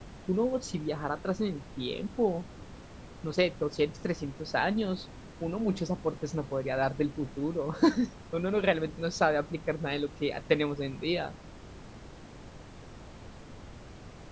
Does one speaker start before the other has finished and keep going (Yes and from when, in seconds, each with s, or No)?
No